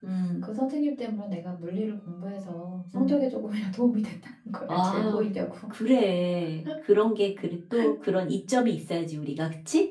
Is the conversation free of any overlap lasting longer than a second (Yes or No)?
Yes